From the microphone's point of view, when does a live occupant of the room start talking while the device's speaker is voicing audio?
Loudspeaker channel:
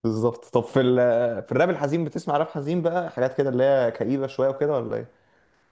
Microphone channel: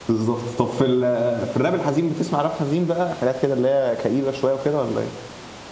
none

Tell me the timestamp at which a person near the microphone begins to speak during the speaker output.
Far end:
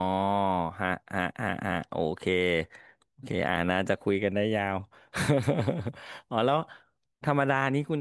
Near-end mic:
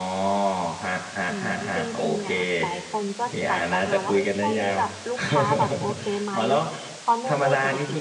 1.3 s

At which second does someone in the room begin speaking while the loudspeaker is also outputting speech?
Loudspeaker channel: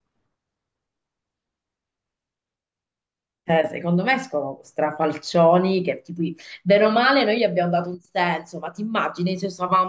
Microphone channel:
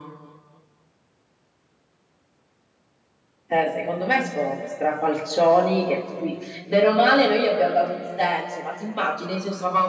none

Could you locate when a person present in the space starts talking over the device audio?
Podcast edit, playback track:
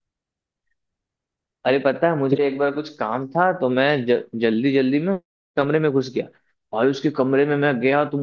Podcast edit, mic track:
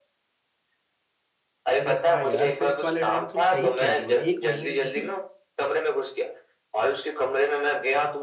1.8 s

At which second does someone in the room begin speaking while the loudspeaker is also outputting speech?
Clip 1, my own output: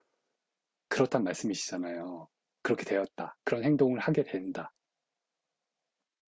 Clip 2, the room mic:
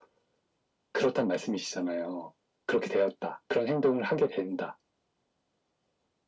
none

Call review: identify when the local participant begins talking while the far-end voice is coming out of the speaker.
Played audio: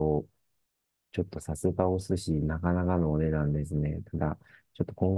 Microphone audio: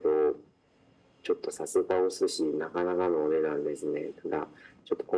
none

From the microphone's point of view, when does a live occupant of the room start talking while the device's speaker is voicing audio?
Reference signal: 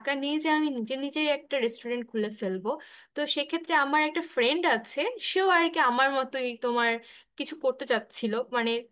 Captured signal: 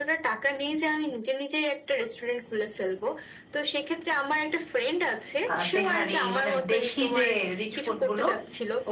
5.5 s

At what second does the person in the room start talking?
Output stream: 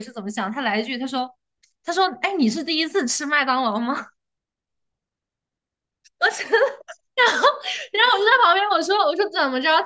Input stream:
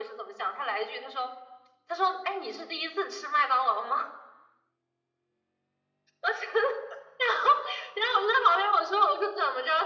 none

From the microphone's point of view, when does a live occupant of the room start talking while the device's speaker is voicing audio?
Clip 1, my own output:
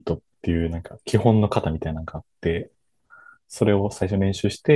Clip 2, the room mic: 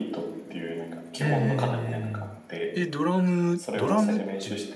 1.2 s

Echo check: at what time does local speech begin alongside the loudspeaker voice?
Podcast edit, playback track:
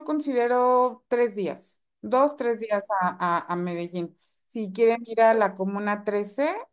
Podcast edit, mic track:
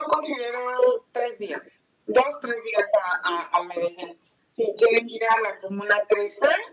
none

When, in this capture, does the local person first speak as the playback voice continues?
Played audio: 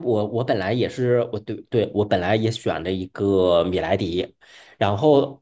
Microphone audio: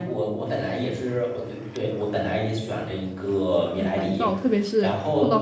3.8 s

